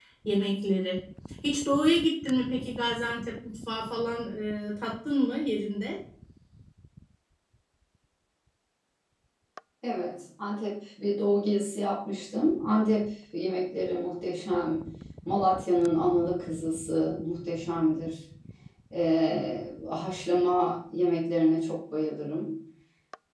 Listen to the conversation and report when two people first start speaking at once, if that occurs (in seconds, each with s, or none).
none